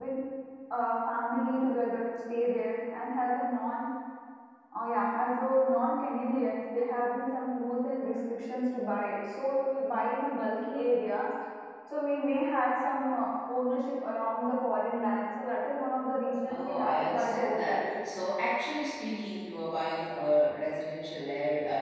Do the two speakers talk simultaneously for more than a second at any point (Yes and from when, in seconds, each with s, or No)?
Yes, from 16.5 s